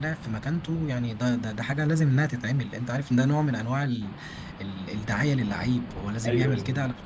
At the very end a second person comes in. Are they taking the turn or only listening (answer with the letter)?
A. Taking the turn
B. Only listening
B